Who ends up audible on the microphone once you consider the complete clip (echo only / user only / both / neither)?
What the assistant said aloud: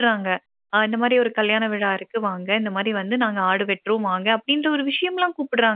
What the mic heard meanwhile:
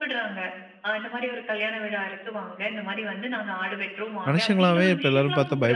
both